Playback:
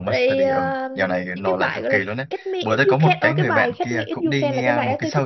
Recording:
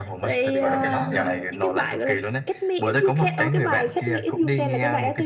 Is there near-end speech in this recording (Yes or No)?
Yes